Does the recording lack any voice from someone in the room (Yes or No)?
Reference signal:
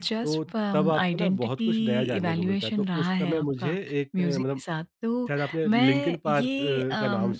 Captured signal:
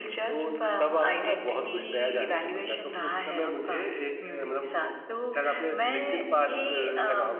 Yes